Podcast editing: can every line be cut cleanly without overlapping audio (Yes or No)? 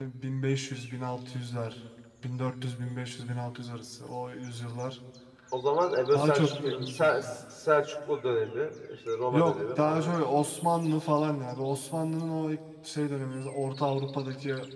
No